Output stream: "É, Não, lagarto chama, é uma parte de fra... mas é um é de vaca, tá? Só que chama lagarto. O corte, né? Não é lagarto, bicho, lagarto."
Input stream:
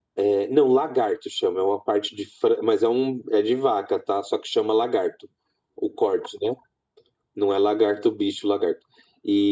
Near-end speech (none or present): none